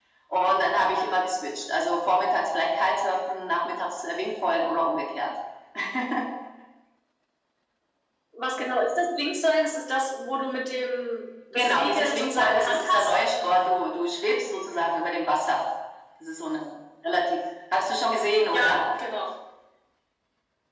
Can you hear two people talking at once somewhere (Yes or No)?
Yes